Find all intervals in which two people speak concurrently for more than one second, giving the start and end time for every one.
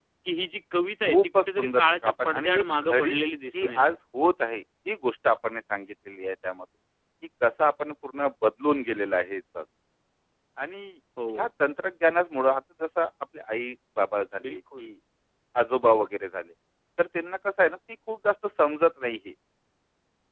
1.0-3.2

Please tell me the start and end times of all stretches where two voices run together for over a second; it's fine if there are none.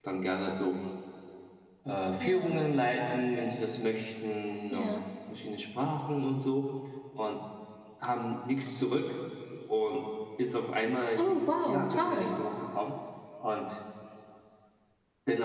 11.2-12.4

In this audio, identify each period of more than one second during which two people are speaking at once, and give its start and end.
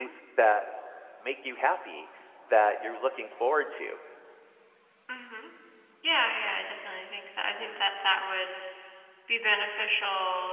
none

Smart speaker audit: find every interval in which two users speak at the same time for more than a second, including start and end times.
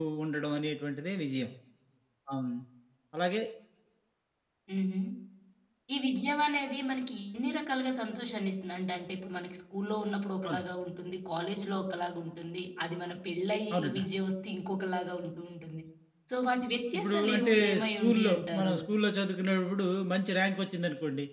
17.0-18.8

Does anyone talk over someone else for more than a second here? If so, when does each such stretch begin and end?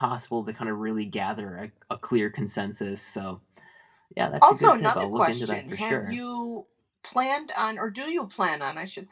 4.4-6.2

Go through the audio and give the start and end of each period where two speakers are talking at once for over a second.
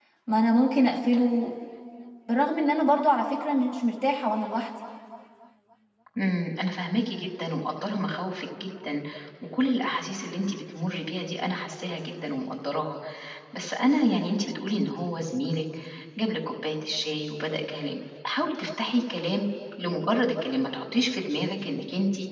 none

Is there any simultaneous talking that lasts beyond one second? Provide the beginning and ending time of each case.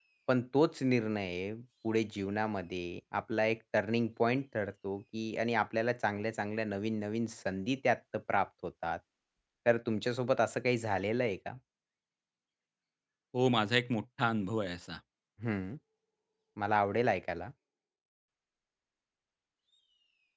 none

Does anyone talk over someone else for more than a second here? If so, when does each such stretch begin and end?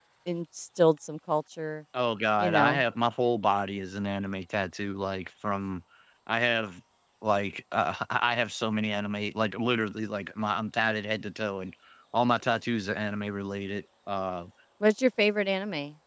none

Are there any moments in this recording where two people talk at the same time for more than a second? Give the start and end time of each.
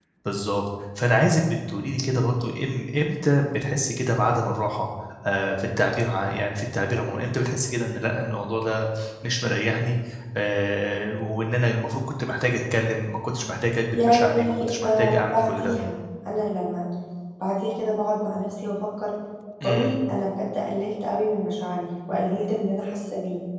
13.9-15.8

